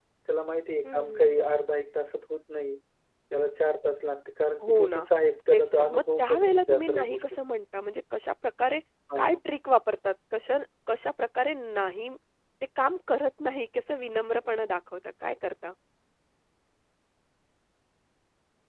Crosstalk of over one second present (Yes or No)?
Yes